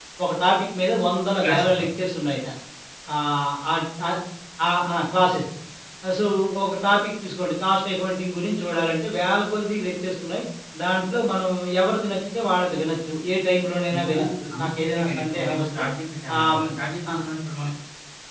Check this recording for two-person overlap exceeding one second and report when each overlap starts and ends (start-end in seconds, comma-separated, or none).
14.6-15.8